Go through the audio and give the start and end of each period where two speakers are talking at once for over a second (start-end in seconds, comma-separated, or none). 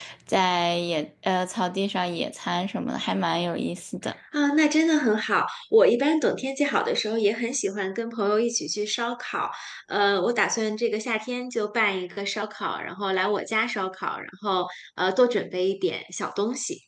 none